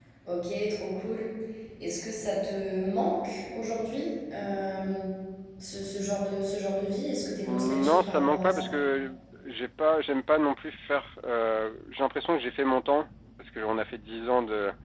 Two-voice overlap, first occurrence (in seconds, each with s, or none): 7.5 s